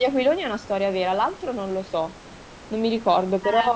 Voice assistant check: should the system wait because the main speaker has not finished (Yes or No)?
No